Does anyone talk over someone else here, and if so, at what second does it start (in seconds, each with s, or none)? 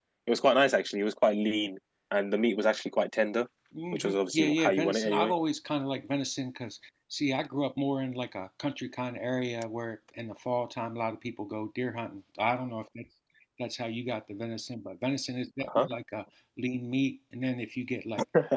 3.9 s